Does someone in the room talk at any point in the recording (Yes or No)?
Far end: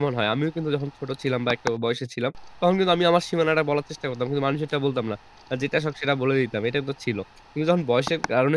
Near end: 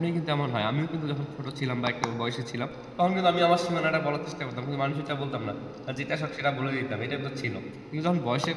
No